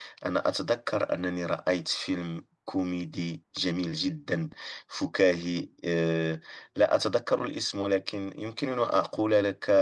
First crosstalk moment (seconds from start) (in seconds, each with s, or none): none